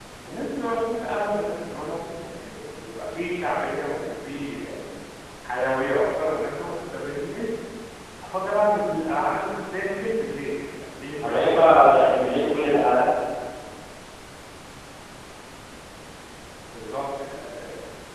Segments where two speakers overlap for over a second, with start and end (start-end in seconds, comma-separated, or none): 11.2-12.6